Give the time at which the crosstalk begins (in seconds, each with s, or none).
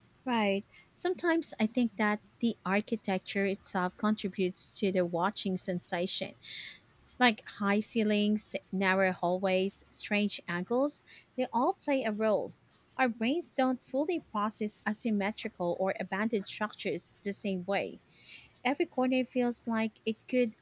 none